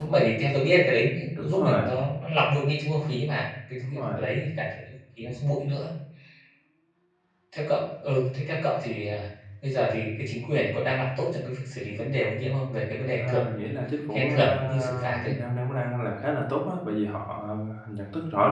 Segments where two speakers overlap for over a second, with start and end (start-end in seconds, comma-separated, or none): 14.1-15.3